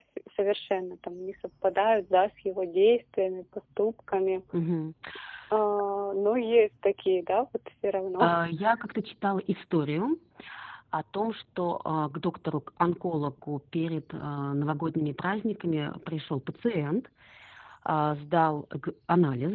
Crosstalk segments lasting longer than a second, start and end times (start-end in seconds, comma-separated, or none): none